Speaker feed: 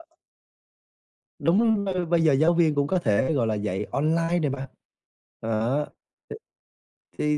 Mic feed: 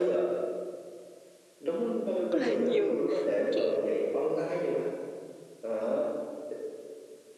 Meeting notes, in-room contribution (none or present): present